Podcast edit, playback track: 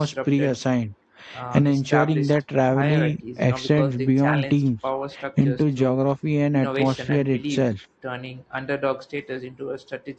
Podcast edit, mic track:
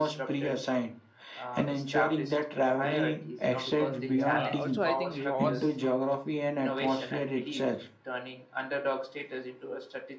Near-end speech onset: 4.0 s

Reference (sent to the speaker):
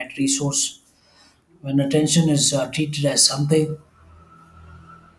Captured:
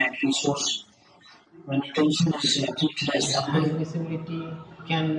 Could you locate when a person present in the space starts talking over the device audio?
3.2 s

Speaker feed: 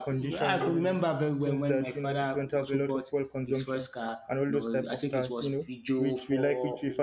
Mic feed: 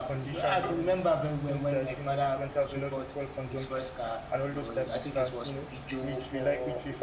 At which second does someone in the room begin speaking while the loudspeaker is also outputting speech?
none

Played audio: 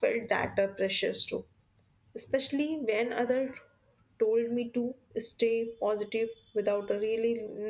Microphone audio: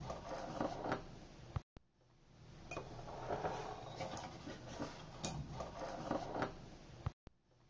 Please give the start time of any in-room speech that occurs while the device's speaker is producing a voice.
none

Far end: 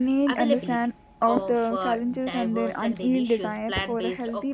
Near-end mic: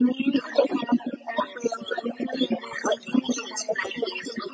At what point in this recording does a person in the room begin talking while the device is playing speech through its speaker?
none

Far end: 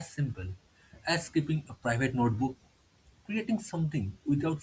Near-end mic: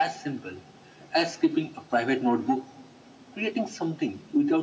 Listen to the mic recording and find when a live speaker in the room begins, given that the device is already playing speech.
none

